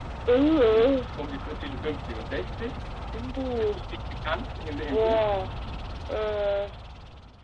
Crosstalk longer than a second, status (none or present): none